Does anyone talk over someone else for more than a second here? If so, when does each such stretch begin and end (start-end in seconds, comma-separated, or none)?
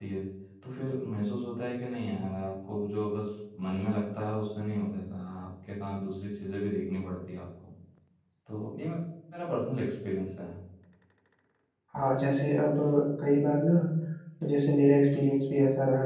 none